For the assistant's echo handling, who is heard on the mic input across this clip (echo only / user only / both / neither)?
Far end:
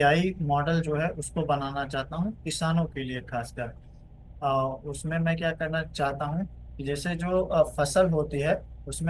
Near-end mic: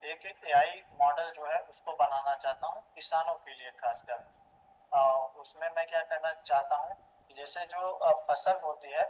echo only